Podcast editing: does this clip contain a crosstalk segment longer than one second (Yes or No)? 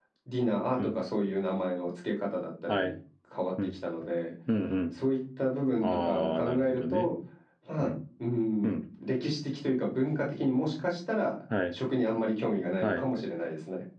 Yes